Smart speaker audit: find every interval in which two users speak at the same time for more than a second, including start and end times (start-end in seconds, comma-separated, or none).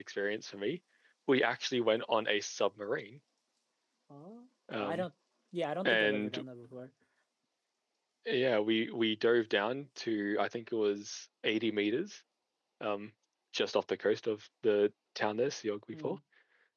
none